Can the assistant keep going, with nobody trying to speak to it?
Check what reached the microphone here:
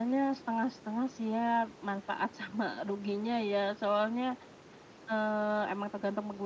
Yes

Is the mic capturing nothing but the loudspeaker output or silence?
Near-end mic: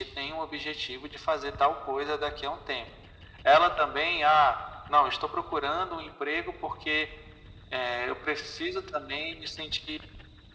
Yes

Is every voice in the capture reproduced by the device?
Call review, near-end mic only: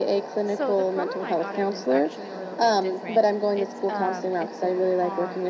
No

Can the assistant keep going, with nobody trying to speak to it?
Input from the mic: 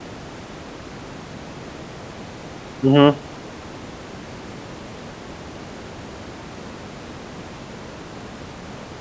No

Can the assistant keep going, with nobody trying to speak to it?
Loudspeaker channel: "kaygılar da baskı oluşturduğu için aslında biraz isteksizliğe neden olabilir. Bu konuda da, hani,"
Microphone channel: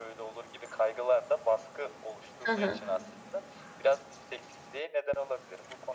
No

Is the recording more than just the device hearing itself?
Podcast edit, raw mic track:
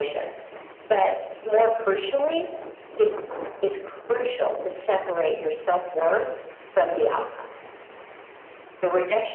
No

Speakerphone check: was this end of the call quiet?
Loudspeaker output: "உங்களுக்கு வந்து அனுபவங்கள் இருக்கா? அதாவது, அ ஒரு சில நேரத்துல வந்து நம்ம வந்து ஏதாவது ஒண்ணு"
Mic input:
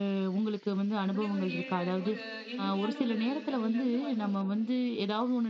No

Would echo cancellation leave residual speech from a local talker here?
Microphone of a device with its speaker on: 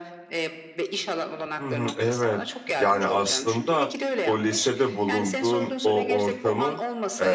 Yes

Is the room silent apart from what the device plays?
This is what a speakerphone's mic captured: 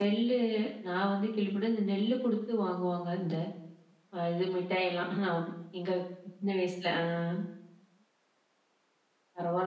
No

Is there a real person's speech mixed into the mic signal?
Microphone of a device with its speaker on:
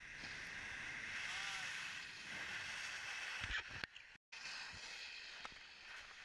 No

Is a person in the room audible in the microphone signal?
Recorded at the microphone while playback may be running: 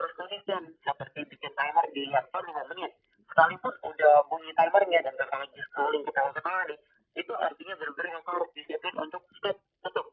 No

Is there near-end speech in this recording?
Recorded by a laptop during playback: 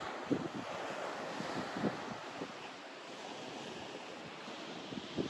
No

